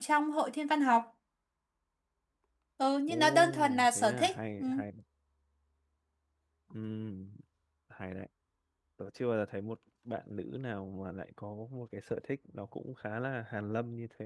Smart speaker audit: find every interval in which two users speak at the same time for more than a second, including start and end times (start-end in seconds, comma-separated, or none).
3.1-4.6